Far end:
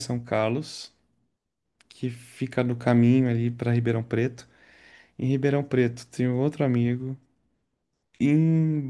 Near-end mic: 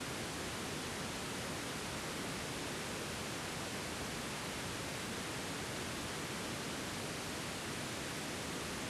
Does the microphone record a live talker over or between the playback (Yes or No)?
No